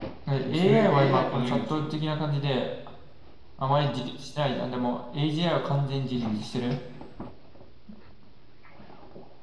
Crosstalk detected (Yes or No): Yes